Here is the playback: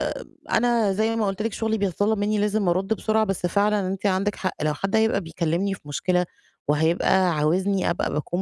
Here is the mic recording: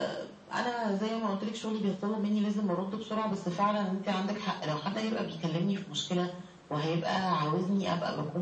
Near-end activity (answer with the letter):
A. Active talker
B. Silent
B